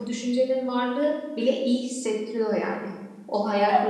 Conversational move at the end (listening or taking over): listening